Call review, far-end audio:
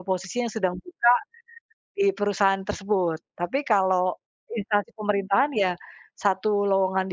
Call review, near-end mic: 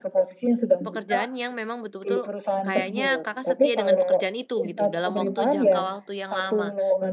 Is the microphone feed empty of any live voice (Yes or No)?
No